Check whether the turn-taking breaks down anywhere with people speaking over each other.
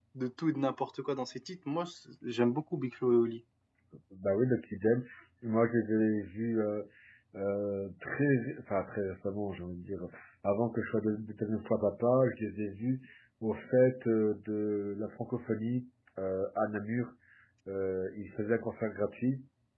No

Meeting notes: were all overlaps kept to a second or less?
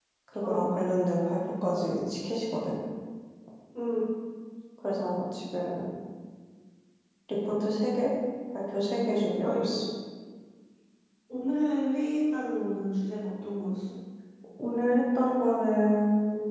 Yes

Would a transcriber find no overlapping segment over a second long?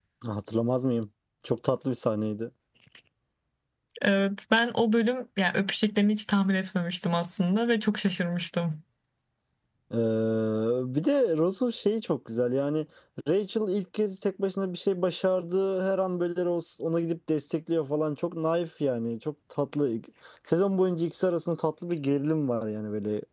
Yes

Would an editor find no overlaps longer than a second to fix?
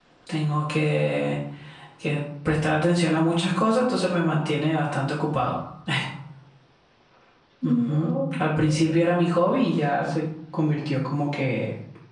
No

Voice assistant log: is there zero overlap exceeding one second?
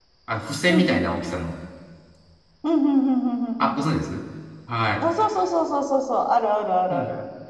Yes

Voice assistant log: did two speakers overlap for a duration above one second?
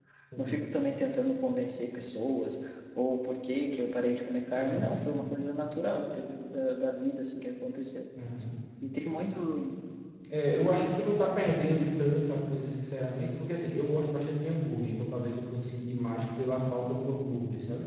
No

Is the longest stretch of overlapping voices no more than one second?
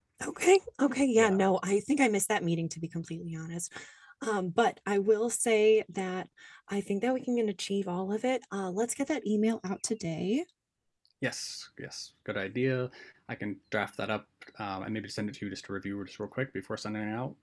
Yes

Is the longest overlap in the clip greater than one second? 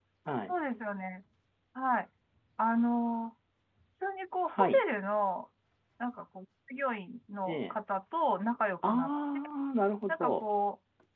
No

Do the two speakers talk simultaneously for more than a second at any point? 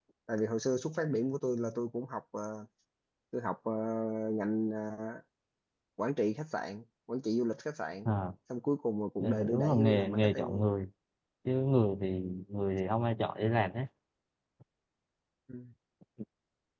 Yes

